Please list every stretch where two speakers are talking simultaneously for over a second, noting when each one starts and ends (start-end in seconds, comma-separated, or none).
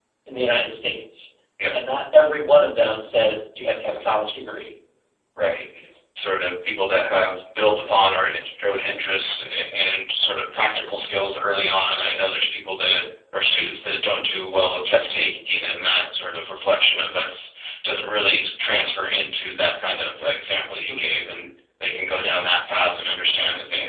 none